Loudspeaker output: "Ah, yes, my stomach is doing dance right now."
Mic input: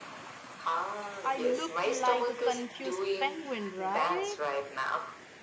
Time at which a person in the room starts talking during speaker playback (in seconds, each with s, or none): 1.2 s